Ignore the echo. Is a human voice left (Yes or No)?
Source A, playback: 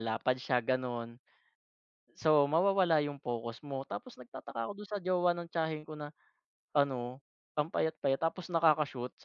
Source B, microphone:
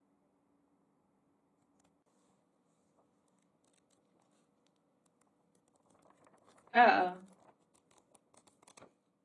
Yes